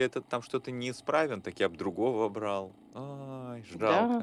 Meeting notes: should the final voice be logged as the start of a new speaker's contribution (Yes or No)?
Yes